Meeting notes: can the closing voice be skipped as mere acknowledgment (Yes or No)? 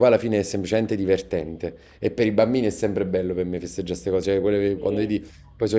Yes